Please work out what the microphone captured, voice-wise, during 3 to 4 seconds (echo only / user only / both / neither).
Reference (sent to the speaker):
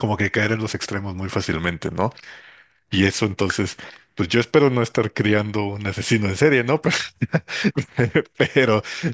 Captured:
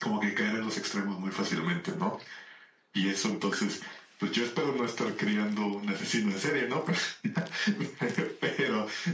echo only